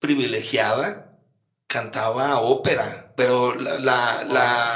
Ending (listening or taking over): listening